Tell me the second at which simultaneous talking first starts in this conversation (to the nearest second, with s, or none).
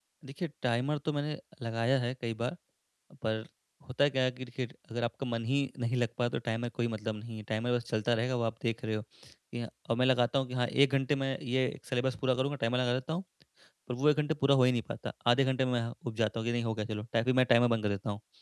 none